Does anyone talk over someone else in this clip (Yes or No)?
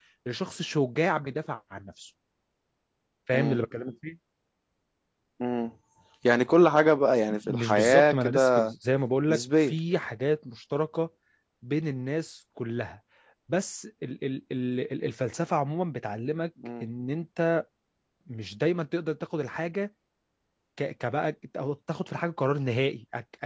Yes